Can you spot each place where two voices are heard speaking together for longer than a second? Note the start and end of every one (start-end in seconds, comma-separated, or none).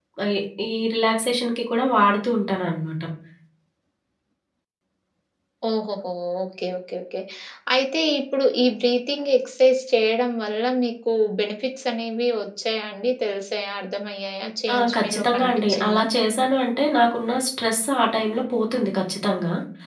14.7-16.1